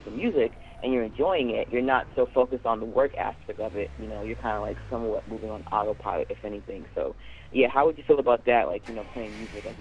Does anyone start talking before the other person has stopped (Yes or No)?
No